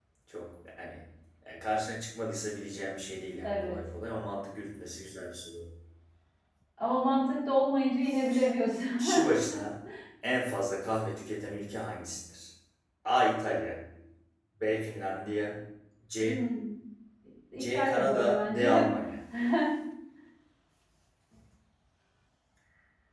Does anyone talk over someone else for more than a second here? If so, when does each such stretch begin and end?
17.6-18.9

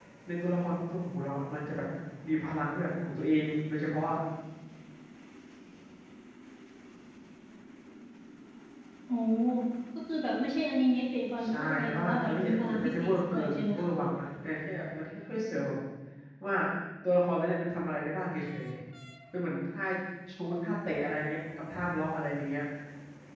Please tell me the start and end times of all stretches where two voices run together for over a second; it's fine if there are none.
11.4-13.9

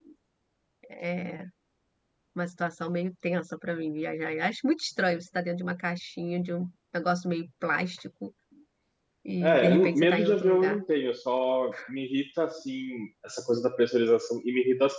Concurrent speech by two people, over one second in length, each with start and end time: 9.4-10.8

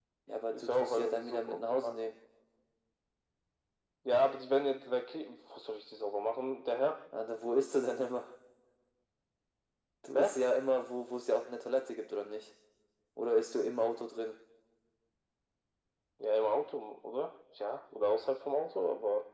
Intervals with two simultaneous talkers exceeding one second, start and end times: 0.5-1.9

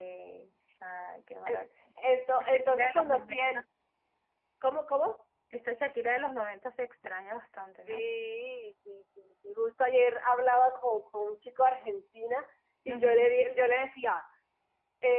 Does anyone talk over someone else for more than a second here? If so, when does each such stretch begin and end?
2.4-3.6

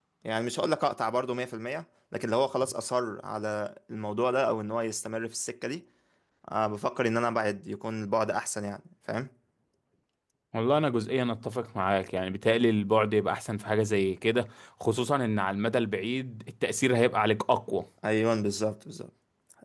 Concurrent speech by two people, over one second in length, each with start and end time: none

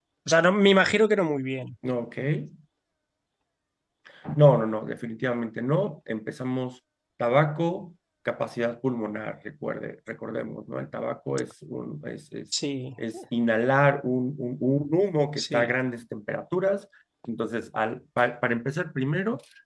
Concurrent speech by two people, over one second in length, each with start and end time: none

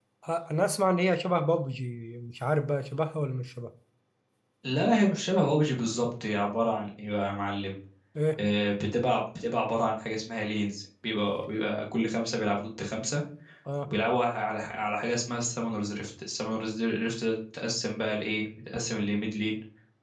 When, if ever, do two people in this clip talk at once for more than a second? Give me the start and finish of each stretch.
none

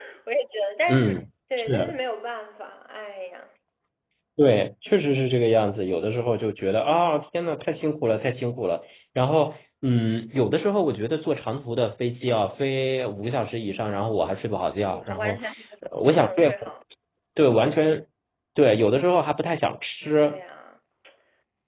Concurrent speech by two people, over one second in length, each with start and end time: none

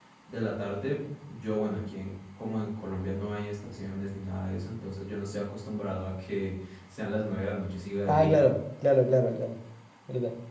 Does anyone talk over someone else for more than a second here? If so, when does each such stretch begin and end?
none

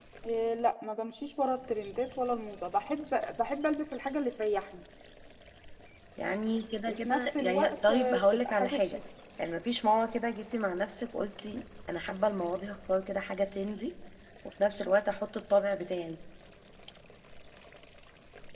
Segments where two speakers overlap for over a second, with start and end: 6.9-9.0

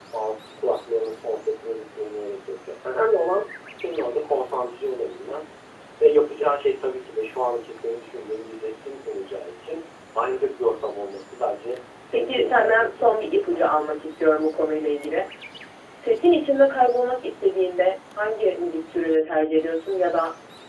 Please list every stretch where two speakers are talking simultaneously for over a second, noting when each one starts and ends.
12.1-14.0

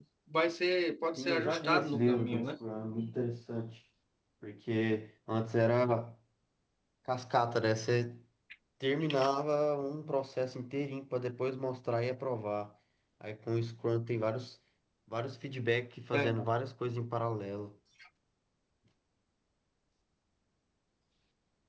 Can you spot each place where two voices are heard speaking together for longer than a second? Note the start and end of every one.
1.2-2.5

